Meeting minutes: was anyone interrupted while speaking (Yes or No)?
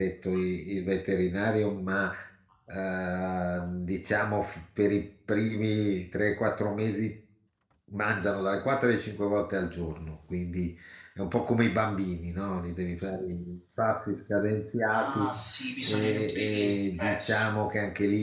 Yes